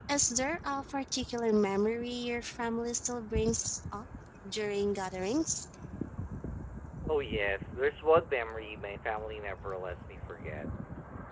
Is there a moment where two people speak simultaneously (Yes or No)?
No